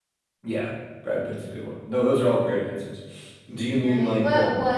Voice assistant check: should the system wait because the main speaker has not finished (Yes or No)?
No